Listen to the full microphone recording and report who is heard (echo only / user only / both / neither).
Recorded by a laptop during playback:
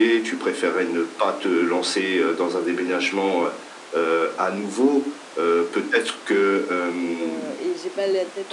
both